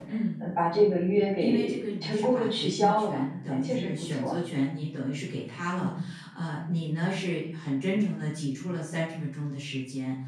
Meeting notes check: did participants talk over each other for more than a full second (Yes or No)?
Yes